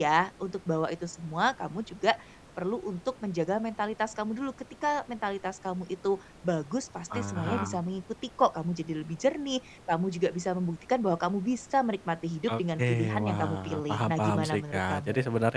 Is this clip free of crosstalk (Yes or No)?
No